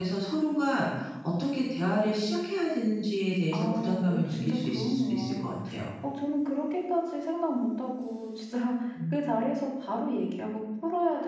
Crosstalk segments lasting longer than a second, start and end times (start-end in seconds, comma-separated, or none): 3.5-5.5